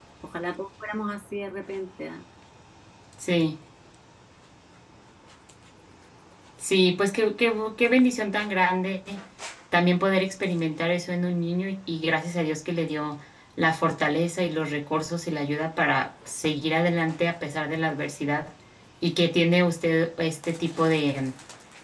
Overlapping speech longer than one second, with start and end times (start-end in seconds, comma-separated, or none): none